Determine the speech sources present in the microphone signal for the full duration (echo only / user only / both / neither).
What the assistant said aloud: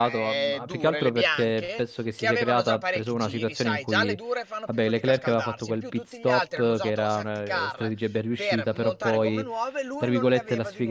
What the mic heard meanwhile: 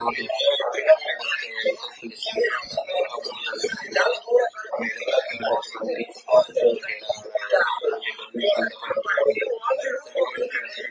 echo only